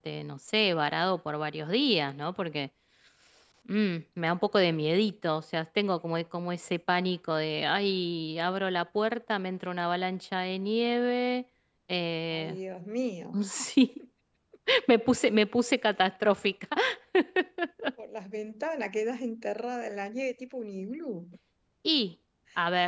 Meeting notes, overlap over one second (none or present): none